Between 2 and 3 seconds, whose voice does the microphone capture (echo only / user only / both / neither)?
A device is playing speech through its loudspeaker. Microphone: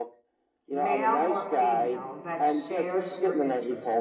both